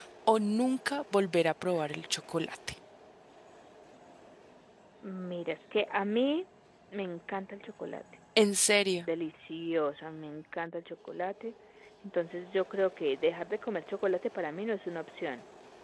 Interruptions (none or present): none